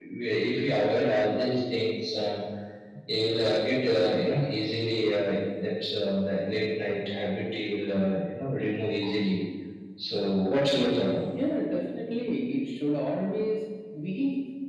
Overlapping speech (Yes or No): No